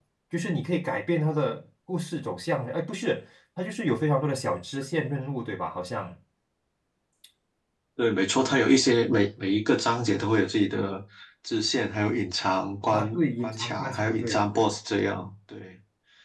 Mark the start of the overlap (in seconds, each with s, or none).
12.9 s